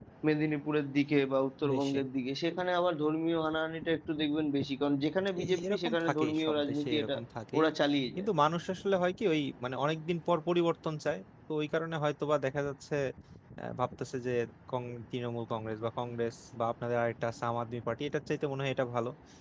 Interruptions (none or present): present